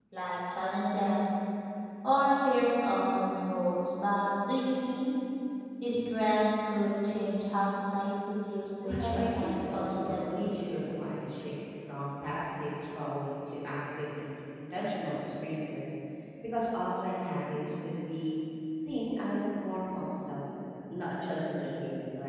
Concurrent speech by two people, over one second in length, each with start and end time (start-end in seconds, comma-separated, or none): 8.8-10.5